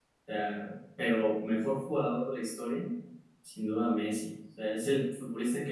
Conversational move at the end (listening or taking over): listening